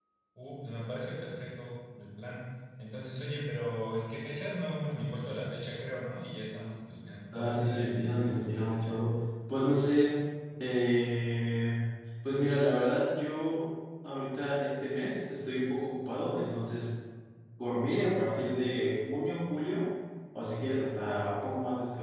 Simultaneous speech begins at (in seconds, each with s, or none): 7.3 s